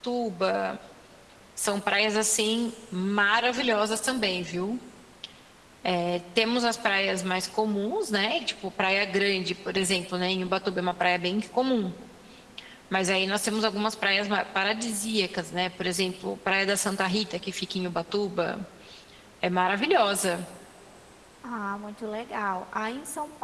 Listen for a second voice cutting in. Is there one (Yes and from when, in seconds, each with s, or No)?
No